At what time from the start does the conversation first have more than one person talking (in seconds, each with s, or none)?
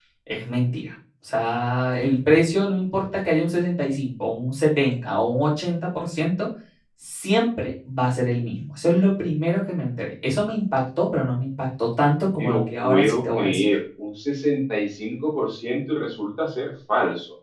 12.1 s